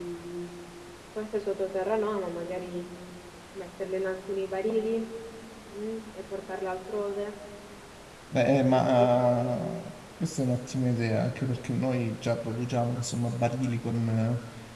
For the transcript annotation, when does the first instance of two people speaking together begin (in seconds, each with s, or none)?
8.5 s